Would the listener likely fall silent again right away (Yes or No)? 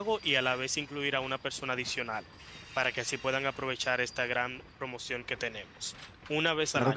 No